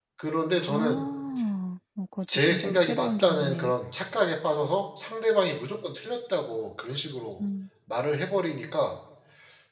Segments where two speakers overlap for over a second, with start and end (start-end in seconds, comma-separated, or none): 2.5-3.7